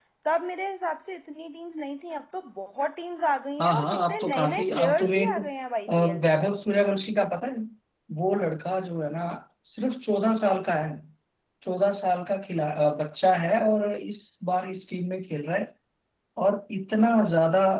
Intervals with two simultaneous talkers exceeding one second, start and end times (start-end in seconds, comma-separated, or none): 3.6-5.2